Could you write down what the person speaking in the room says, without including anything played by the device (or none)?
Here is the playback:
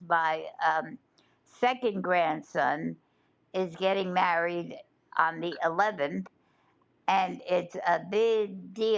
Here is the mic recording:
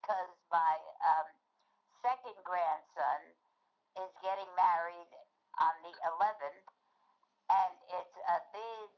none